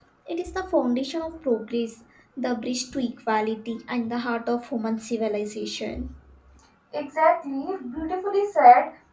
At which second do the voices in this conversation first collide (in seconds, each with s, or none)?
none